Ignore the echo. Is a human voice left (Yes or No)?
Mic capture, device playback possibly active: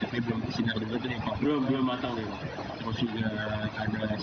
Yes